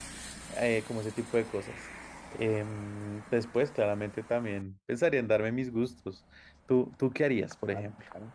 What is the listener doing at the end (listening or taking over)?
taking over